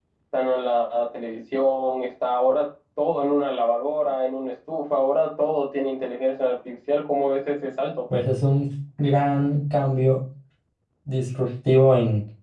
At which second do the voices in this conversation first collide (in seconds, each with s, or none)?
none